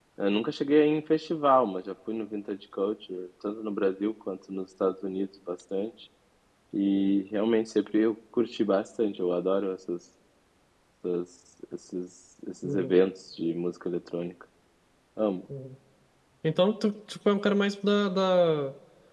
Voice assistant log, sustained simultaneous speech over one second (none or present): none